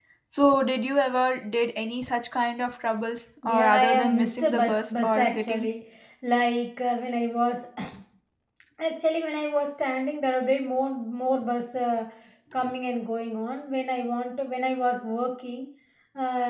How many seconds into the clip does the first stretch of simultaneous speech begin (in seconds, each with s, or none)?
3.4 s